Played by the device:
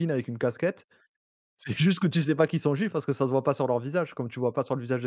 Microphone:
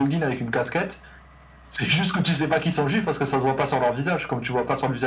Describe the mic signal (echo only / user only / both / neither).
echo only